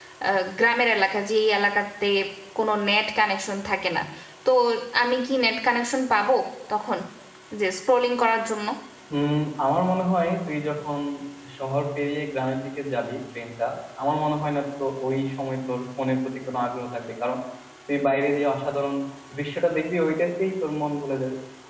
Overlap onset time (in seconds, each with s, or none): none